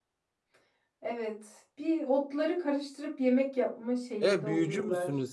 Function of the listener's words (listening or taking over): taking over